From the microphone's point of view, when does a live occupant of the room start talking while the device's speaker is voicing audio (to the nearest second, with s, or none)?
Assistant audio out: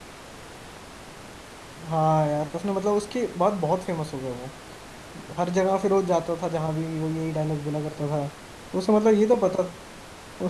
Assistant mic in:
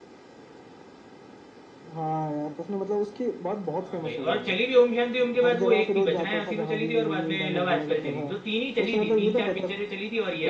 4 s